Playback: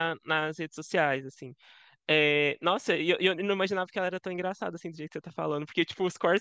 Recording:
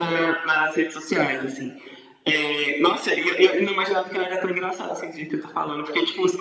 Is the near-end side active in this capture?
No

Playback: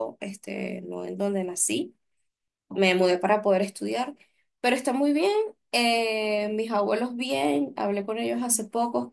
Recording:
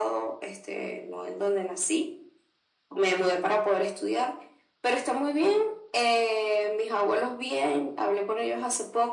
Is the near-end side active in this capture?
No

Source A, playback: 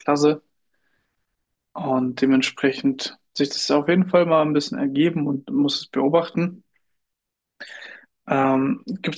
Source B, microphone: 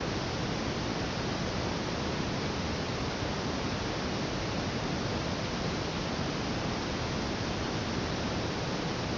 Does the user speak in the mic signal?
No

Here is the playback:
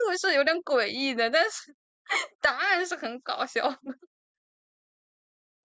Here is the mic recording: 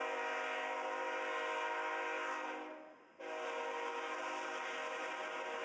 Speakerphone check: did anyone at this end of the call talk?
No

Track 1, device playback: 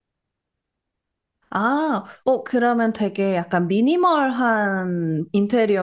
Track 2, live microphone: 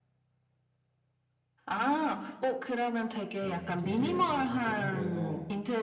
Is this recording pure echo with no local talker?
No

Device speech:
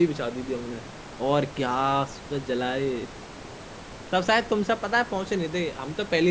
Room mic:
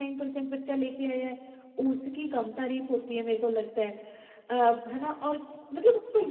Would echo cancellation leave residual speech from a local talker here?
Yes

